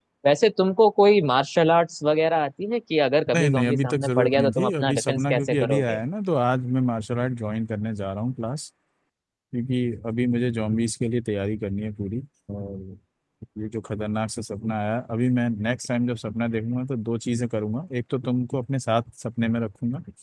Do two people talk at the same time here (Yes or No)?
Yes